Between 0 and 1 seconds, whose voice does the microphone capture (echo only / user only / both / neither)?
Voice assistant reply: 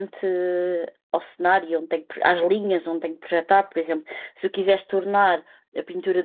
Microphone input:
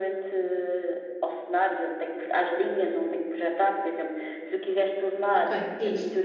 echo only